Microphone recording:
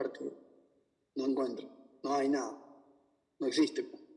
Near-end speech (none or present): none